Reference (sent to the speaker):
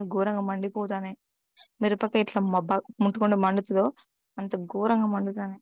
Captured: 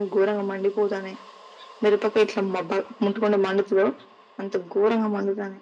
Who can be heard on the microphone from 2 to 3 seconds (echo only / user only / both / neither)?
echo only